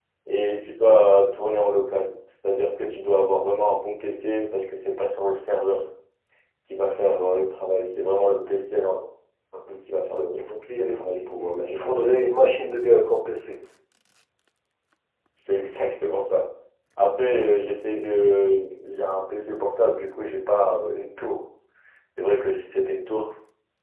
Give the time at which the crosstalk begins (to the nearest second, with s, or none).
11 s